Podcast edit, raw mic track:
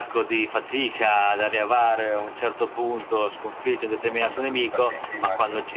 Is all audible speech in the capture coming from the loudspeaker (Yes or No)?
No